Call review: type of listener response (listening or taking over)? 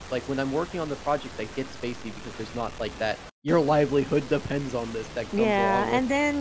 taking over